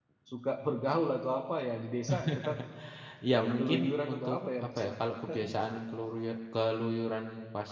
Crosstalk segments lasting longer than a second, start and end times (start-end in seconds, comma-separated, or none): 3.4-4.9